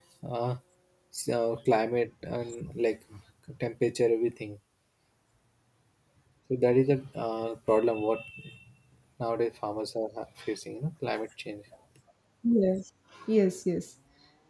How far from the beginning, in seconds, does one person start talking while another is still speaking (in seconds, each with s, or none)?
none